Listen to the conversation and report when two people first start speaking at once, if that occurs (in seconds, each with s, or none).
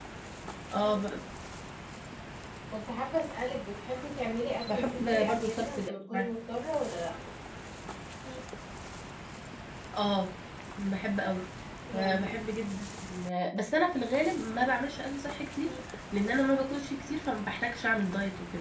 4.7 s